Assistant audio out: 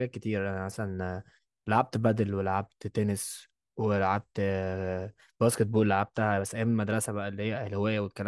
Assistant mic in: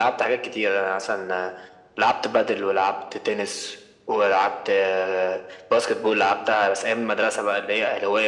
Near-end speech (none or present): none